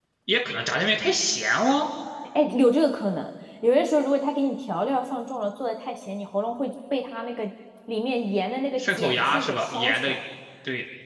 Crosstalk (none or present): present